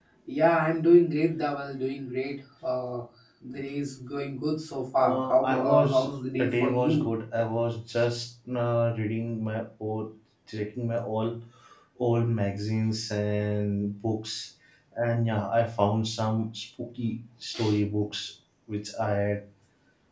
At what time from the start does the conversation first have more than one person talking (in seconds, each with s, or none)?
5.0 s